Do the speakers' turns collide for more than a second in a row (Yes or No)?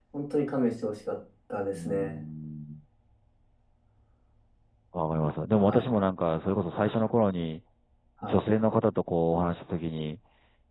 No